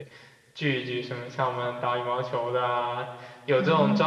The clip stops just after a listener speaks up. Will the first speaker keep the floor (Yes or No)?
Yes